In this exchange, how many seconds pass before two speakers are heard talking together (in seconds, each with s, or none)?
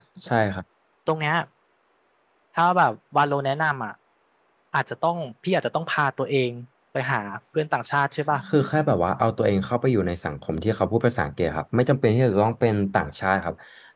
none